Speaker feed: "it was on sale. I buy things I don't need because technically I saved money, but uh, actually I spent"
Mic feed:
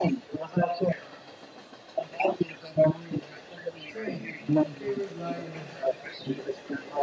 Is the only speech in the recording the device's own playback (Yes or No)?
No